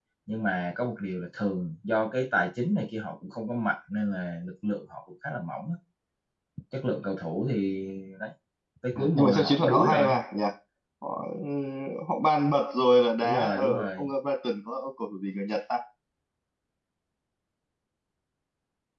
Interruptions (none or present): present